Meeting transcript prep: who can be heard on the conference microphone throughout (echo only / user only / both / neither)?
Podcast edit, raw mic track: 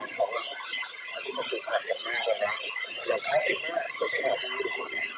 echo only